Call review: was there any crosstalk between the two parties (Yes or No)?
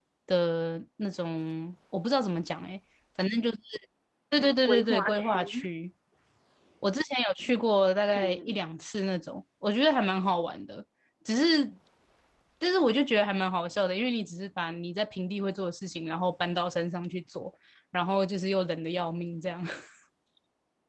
Yes